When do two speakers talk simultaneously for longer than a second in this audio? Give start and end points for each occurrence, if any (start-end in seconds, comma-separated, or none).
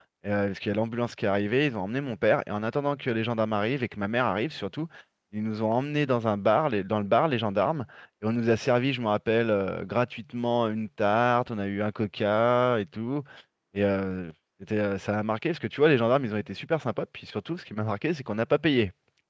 none